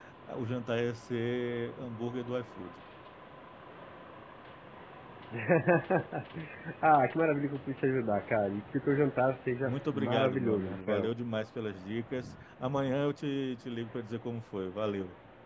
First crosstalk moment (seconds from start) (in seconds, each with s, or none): 9.6 s